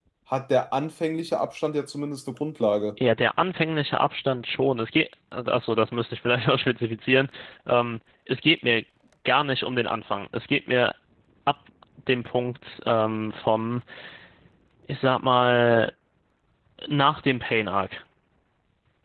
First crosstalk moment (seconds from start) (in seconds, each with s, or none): none